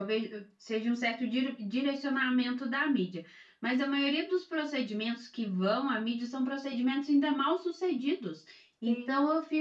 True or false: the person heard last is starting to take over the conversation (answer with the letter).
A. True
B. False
B